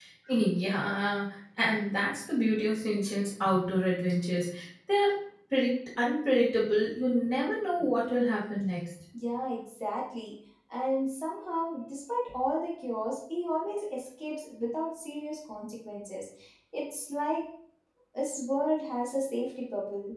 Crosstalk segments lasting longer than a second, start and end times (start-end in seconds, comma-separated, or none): none